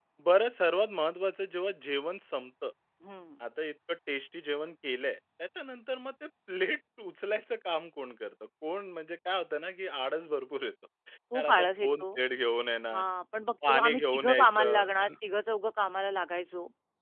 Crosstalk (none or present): present